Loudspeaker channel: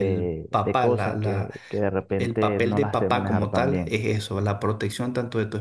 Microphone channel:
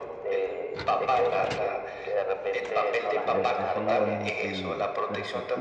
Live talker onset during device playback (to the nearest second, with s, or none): 3 s